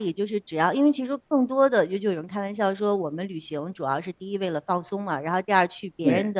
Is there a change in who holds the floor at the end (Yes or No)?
No